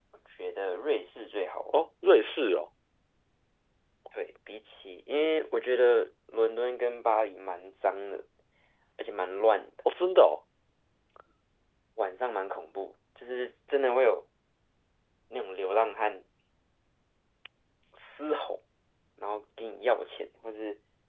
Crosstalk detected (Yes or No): No